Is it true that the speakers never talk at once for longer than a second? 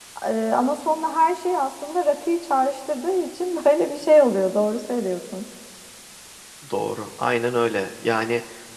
Yes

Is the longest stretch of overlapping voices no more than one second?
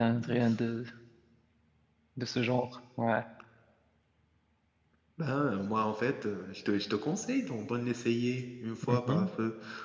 Yes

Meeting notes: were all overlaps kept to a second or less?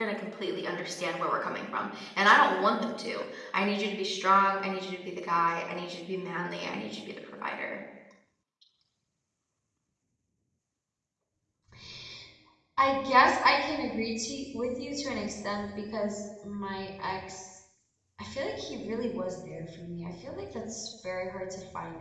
Yes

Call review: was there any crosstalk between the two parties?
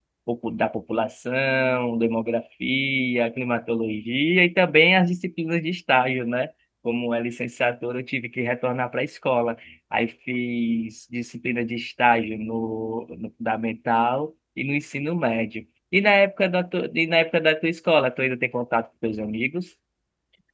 No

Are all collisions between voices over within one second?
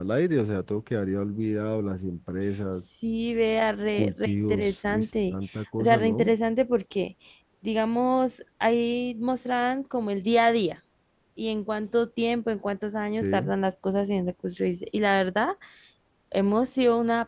No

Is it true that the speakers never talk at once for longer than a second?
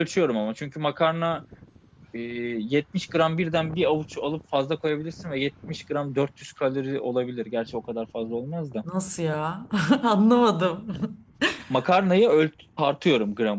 Yes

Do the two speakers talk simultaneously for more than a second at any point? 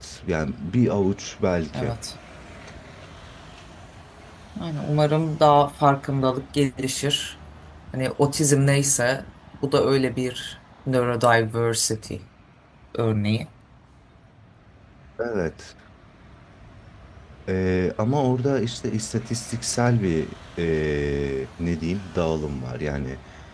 No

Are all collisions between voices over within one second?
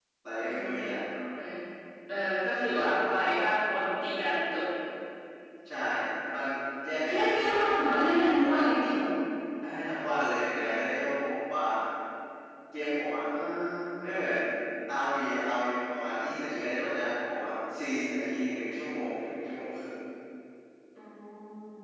Yes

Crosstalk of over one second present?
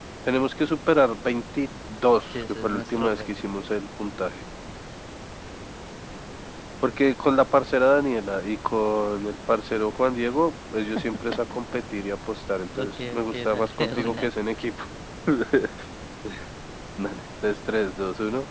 Yes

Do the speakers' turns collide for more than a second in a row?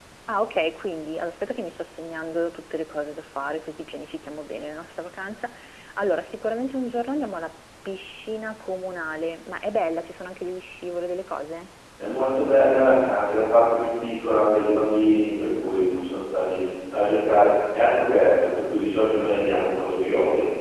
No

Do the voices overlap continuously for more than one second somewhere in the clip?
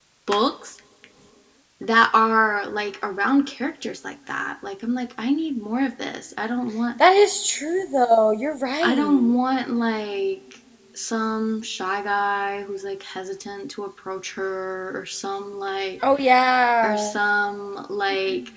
No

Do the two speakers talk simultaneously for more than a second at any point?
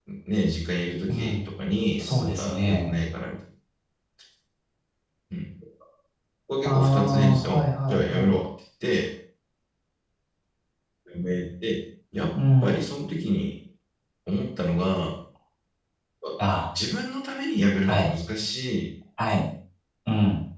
Yes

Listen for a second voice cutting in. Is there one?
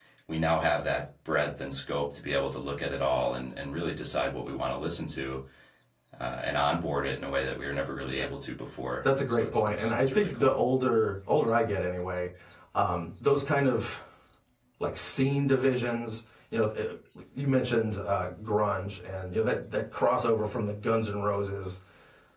Yes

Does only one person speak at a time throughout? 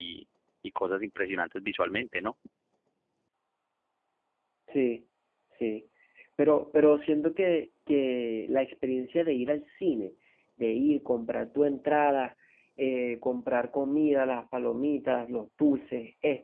Yes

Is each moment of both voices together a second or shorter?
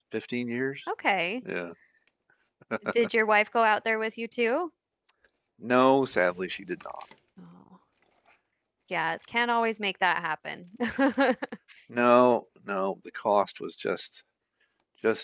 Yes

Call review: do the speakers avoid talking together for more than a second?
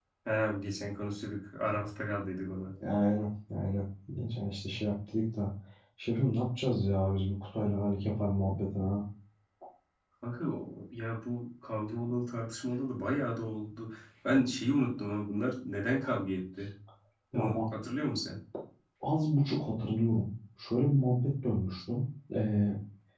Yes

